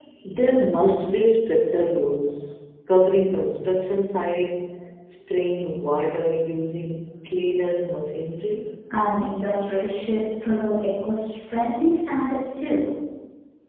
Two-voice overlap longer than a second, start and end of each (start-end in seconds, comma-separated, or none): none